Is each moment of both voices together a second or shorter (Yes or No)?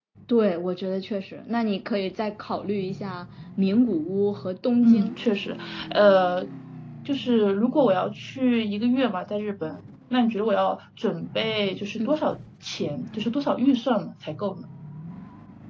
Yes